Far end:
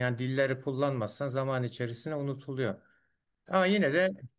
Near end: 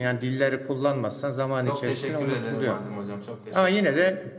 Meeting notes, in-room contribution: present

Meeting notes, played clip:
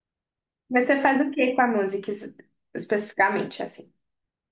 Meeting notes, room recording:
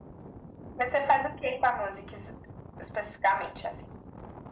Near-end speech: none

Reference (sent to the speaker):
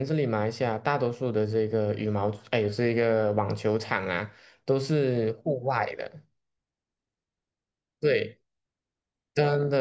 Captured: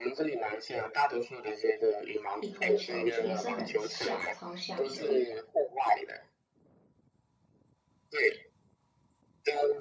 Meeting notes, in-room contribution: present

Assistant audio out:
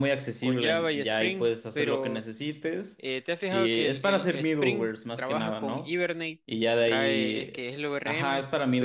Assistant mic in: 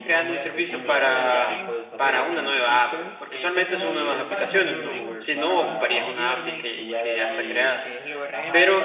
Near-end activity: present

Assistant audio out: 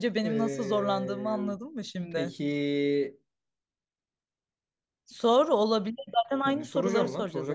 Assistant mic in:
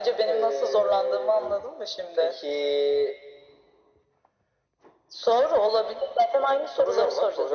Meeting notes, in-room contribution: none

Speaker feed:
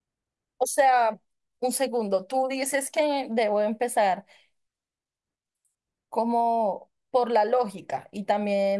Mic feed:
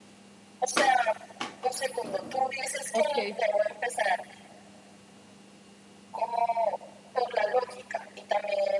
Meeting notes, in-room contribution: present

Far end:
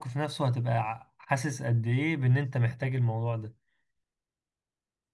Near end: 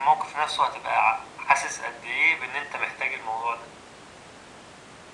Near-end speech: none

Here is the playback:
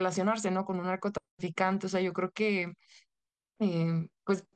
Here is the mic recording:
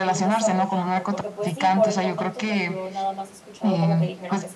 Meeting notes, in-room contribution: present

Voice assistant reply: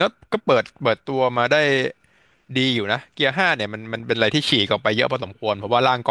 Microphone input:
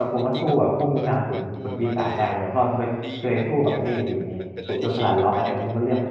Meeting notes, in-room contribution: present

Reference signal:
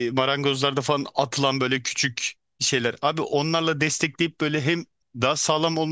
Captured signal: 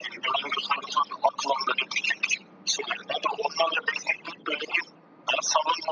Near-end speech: none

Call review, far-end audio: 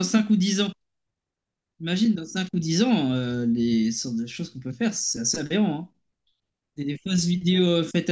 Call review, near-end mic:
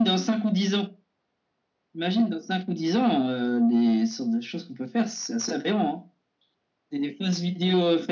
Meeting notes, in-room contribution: none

